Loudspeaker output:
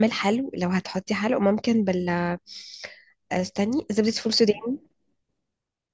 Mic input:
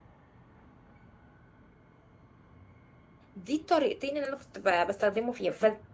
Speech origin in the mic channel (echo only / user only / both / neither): user only